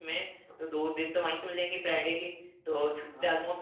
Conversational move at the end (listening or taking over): listening